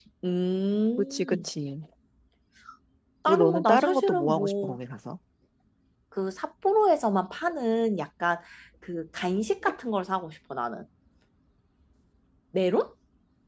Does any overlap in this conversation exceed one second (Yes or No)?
Yes